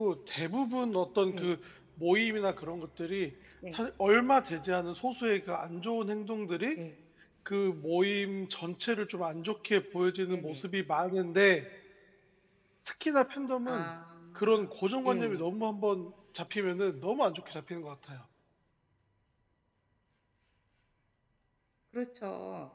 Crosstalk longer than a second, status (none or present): none